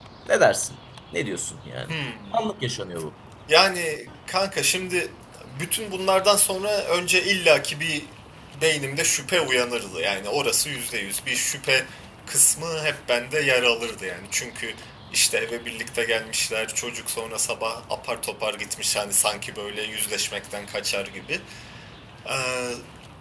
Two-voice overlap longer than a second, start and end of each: none

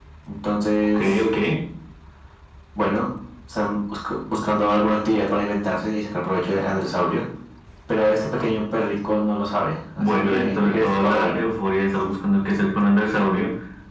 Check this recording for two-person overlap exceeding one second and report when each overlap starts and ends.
10.0-11.3

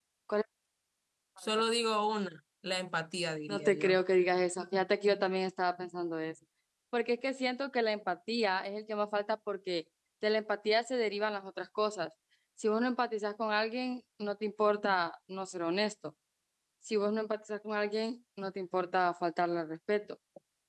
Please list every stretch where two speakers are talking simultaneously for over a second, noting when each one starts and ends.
none

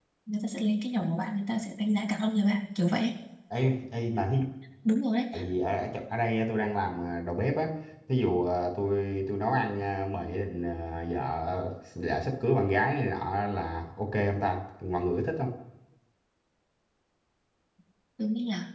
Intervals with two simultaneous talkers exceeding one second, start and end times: none

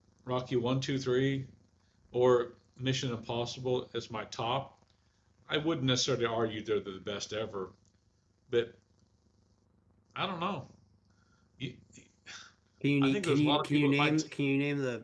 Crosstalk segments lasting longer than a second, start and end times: 13.0-14.2

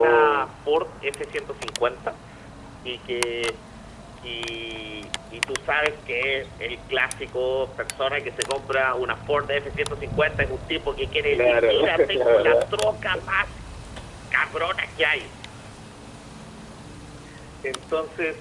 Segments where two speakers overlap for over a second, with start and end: 11.3-12.6

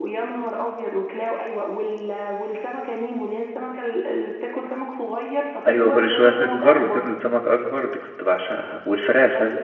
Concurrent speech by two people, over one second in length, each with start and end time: 5.7-7.1

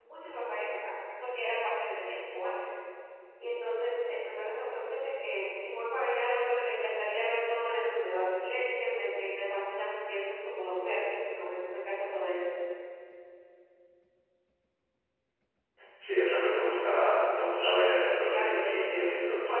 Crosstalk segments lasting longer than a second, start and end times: 17.6-19.0

